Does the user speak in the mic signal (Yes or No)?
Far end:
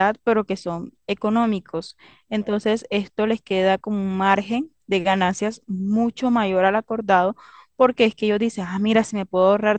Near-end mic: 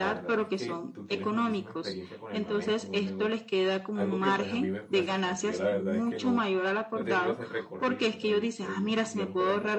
Yes